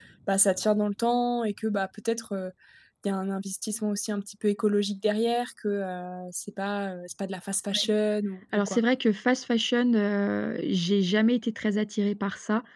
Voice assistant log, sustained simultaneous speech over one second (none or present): none